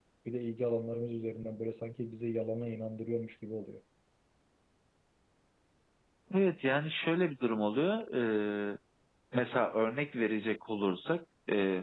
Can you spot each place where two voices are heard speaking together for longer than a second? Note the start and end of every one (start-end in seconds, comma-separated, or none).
none